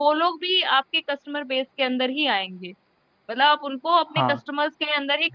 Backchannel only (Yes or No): Yes